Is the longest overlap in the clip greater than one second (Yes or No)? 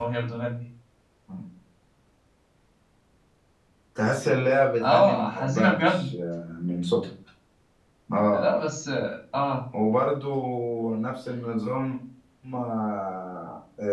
Yes